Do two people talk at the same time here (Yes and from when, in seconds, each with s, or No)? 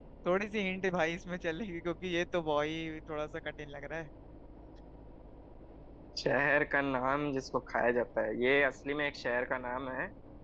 No